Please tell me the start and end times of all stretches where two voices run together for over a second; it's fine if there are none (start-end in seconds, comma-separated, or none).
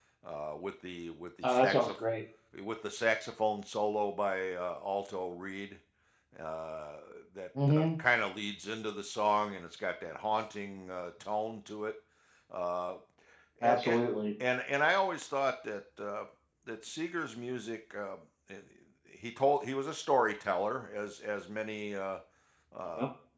none